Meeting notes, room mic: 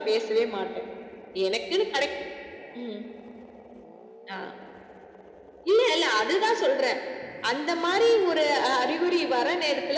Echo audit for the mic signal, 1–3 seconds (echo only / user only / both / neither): echo only